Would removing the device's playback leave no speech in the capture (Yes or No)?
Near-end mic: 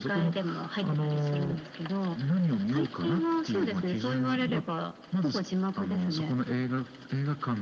Yes